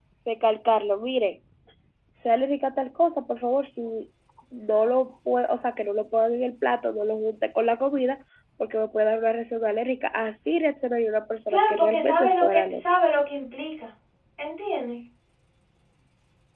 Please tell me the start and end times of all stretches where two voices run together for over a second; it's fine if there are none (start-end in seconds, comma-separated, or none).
11.5-12.8